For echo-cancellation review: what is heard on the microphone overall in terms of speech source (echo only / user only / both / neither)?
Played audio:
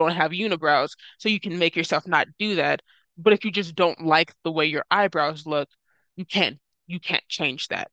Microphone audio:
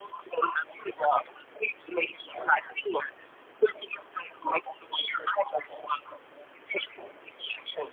echo only